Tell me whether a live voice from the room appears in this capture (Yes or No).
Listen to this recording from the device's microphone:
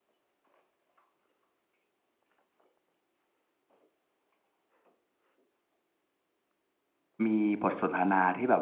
Yes